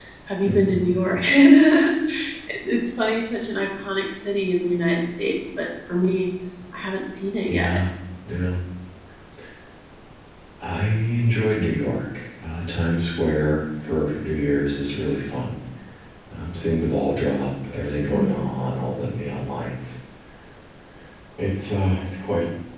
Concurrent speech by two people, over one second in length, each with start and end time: none

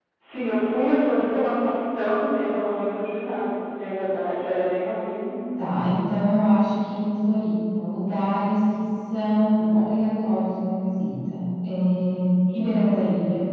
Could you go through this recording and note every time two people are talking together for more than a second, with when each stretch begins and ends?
none

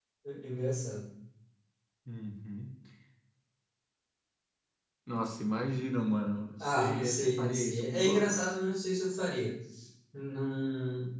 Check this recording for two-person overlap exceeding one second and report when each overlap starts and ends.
6.6-8.4

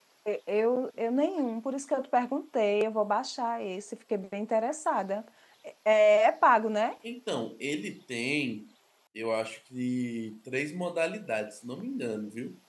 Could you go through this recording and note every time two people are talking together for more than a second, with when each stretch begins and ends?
none

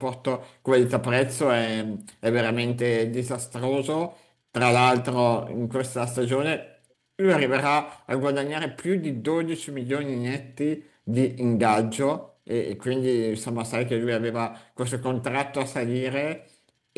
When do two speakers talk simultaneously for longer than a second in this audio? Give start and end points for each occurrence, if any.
none

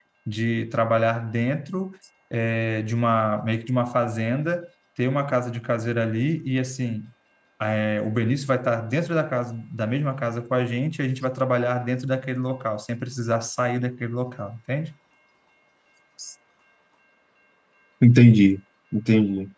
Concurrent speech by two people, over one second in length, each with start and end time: none

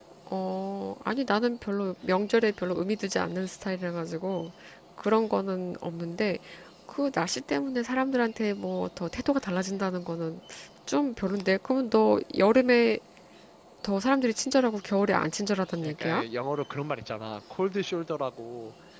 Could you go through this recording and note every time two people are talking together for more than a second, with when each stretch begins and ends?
none

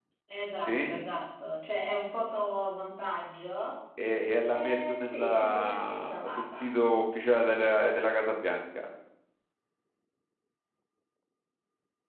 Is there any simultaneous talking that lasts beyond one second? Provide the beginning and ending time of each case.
4.5-6.7

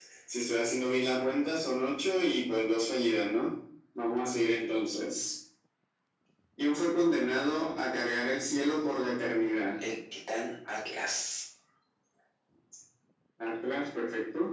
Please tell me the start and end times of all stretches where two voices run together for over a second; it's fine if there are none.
none

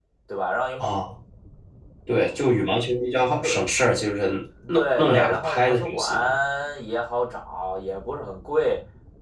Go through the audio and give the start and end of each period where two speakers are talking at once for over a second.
4.7-6.1

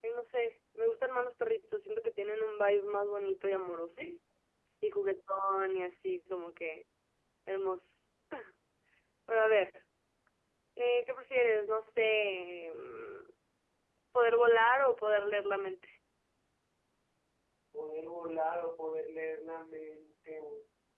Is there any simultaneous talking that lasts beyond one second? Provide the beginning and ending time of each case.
none

